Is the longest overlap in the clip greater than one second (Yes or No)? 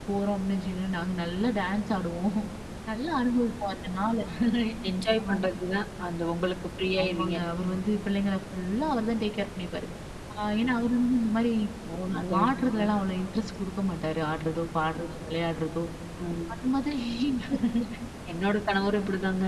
No